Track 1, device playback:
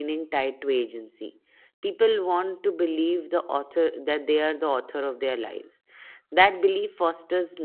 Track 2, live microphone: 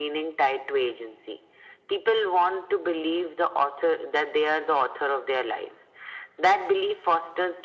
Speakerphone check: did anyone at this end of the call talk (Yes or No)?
No